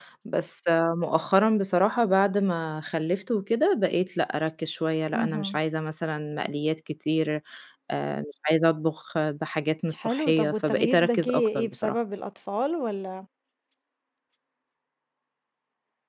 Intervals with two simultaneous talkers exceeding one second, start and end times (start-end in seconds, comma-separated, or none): 9.9-12.0